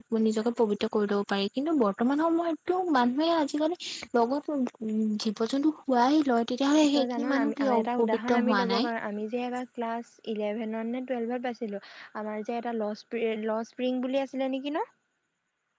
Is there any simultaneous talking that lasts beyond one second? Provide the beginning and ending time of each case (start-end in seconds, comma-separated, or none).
6.9-8.9